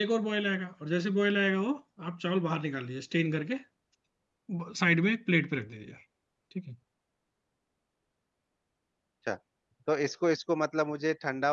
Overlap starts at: none

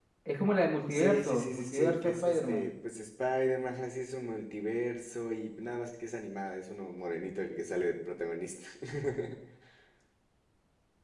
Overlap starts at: 0.9 s

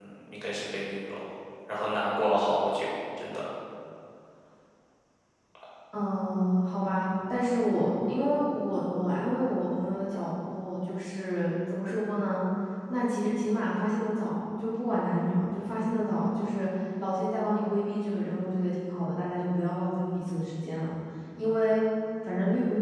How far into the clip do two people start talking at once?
none

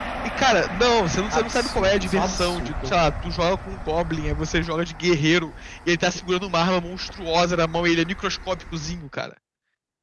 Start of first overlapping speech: 1.3 s

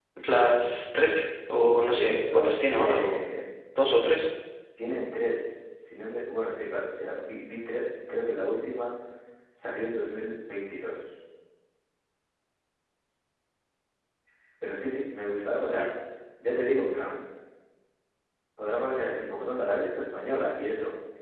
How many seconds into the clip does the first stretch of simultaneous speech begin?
1.6 s

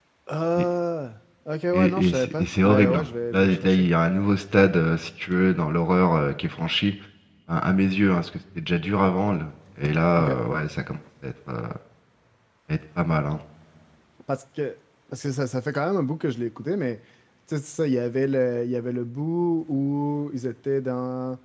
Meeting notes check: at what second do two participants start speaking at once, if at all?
1.7 s

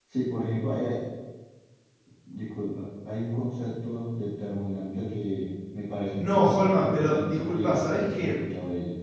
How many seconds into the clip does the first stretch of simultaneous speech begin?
6.2 s

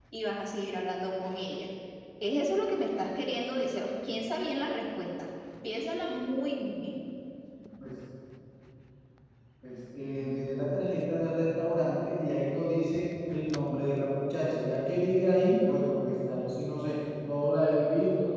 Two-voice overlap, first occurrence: none

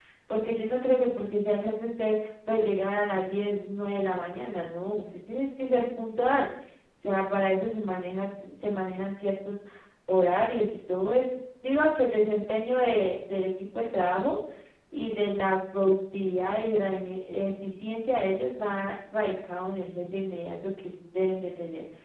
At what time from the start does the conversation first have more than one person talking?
none

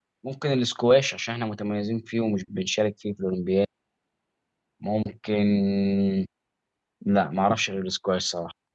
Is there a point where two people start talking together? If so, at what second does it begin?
none

